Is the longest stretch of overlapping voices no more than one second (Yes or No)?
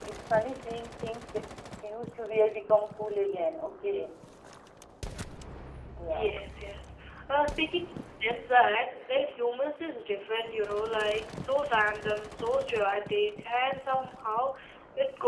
Yes